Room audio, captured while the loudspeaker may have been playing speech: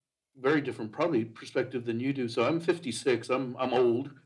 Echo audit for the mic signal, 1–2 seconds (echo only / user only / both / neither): echo only